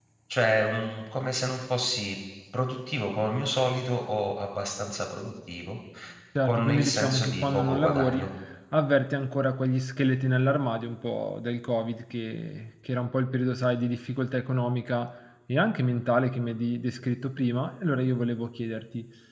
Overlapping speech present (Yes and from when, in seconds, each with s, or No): Yes, from 6.4 s